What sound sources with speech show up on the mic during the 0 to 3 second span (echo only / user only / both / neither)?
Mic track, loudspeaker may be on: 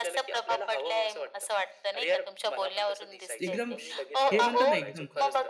echo only